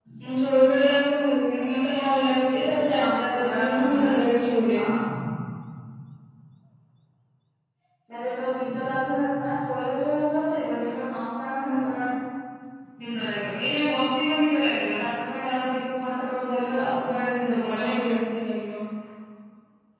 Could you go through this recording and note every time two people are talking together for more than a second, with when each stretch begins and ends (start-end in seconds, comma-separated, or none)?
2.6-4.1